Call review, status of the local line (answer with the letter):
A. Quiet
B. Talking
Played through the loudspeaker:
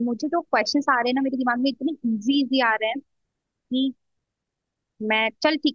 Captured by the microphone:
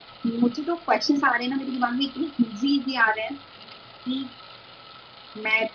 A